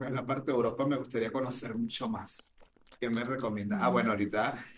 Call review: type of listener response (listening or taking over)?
listening